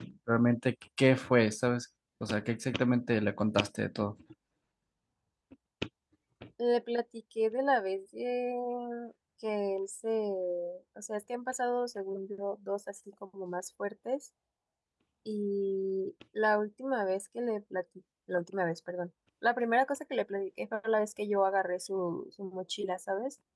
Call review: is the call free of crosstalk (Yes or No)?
Yes